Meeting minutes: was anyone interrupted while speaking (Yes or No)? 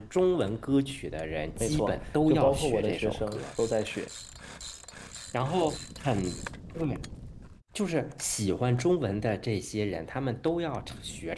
Yes